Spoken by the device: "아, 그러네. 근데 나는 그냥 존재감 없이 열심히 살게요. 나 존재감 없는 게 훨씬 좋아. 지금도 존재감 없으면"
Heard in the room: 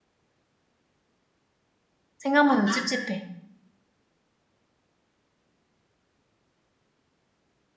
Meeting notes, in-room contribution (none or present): present